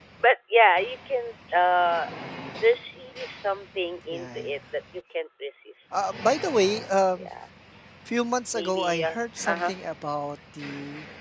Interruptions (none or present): present